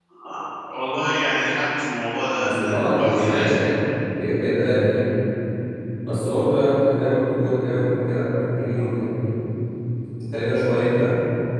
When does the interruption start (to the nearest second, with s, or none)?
2 s